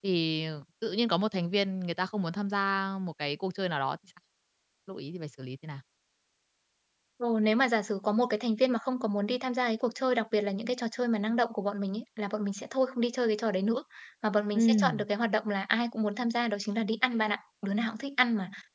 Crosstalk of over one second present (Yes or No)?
No